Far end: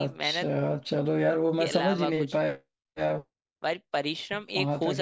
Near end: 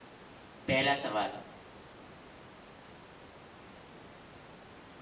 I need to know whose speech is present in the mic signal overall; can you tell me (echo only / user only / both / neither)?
user only